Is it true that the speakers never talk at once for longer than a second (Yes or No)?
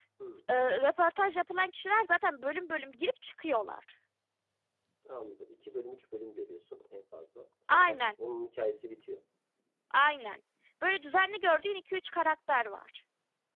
Yes